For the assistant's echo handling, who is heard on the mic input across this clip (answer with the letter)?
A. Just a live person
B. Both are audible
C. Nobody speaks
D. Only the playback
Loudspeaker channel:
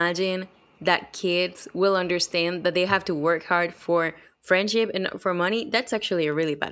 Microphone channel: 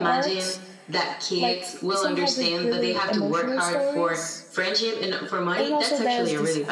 B